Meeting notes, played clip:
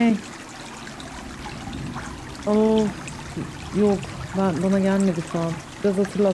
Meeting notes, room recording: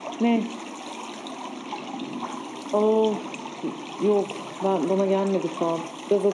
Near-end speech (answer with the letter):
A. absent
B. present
A